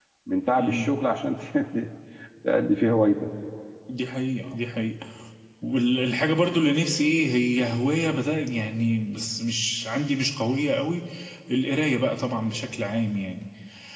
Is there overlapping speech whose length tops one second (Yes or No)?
No